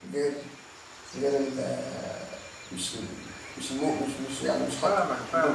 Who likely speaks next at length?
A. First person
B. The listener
B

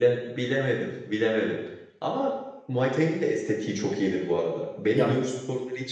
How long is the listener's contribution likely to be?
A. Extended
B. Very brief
B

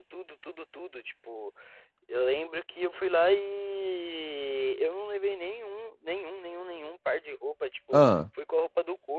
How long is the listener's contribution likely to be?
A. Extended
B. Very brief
B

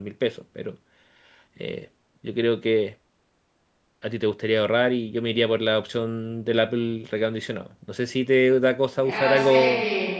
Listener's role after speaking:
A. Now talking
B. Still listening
A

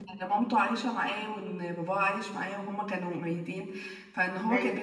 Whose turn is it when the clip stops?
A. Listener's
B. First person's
B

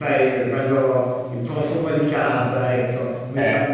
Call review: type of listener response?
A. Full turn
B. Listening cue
B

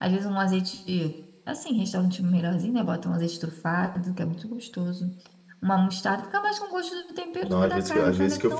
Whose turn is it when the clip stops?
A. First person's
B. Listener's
B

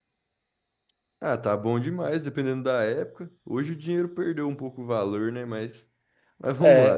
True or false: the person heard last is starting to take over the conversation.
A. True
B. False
A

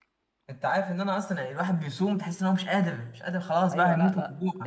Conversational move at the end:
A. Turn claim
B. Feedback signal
A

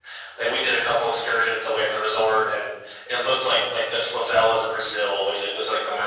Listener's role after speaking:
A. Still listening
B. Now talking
A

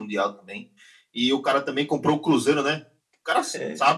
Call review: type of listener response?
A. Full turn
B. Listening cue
B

